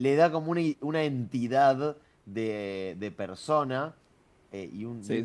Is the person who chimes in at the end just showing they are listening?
Yes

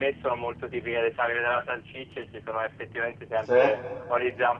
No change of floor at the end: Yes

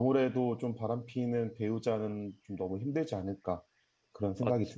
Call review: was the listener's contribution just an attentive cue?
No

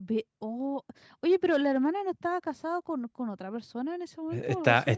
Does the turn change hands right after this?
Yes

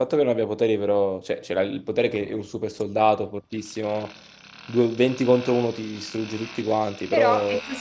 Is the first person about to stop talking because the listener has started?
Yes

